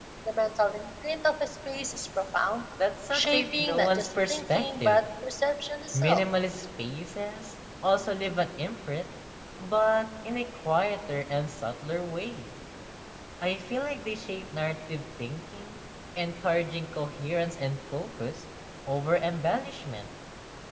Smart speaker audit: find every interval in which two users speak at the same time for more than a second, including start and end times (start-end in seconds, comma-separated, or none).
3.1-5.0